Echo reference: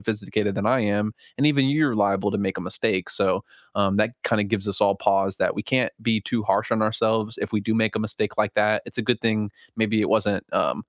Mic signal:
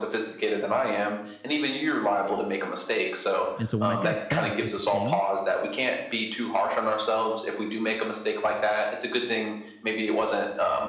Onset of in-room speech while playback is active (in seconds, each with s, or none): 3.5 s